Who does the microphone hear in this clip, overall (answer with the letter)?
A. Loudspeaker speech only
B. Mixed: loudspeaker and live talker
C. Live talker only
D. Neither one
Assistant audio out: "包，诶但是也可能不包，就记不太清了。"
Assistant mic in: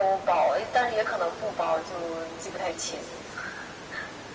A